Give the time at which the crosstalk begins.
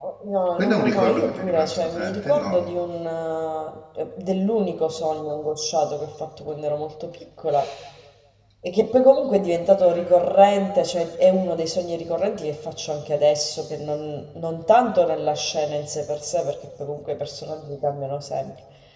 1 s

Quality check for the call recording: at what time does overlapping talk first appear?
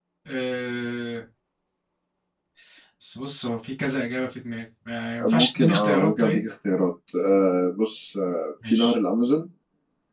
5 s

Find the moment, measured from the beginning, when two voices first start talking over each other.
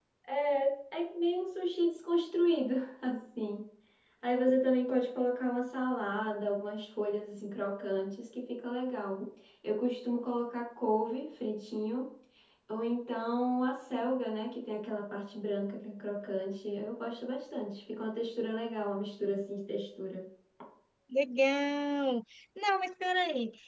none

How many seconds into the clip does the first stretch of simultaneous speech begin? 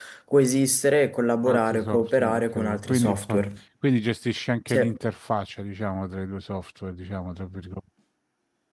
1 s

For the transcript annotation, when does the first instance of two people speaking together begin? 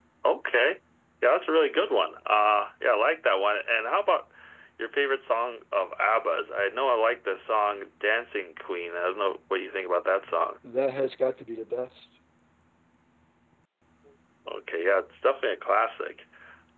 none

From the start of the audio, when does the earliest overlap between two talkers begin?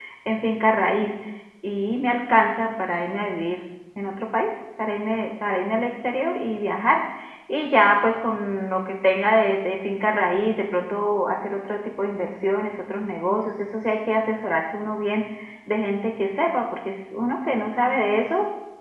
none

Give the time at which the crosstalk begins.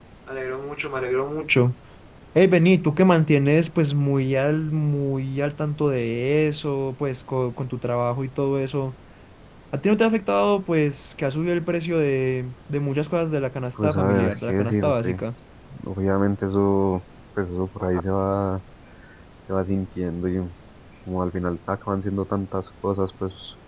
14 s

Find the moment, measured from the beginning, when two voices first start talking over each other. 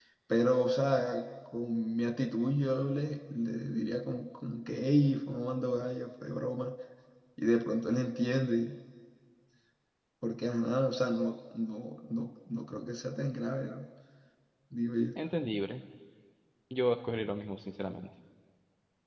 none

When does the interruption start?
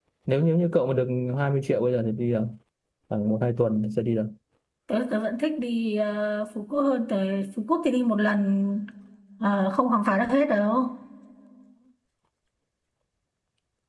none

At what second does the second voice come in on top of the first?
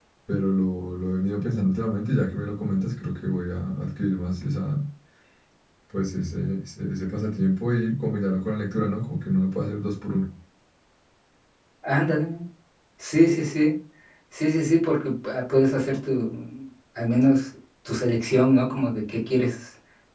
none

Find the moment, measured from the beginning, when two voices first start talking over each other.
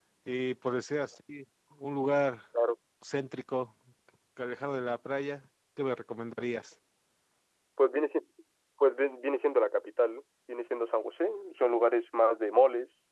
none

